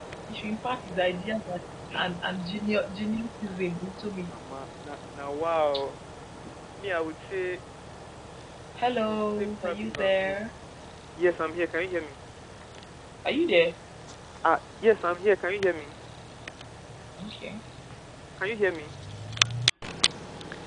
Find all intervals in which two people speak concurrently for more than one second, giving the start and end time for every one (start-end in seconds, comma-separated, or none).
9.0-10.4